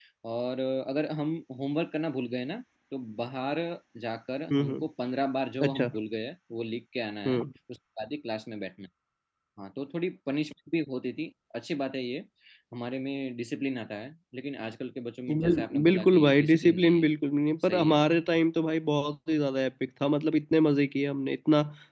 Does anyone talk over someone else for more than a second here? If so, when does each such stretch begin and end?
15.3-17.1

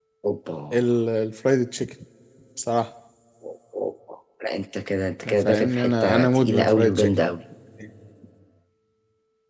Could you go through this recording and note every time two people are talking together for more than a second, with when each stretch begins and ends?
5.4-7.1

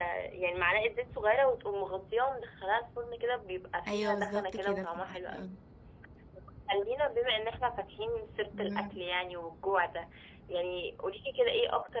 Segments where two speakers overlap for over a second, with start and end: 3.9-5.5

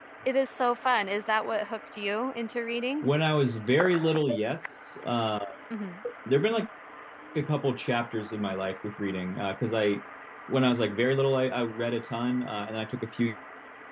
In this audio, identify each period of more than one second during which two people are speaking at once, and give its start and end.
none

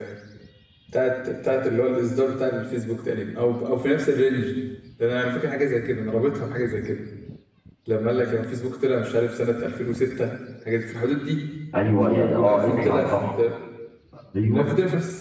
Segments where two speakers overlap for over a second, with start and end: 12.0-13.2

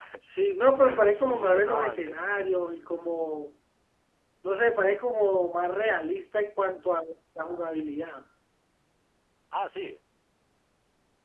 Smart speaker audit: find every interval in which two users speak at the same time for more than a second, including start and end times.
0.8-2.2

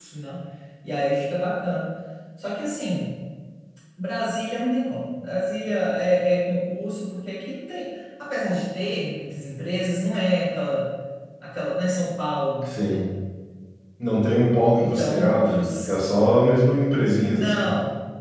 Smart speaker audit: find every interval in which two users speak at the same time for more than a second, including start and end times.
14.8-16.0

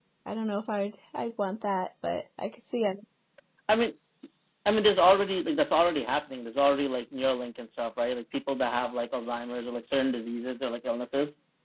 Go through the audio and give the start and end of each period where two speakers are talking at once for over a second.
none

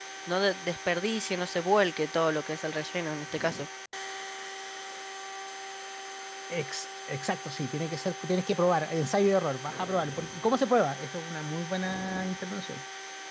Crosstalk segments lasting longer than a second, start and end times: none

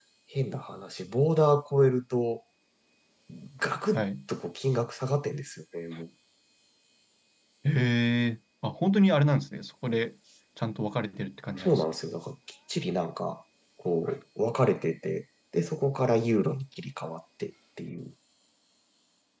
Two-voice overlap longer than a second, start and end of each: none

